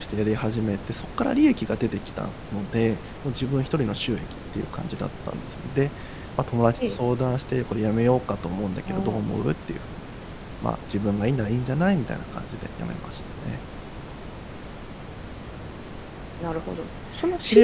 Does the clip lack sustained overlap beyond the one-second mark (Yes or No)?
Yes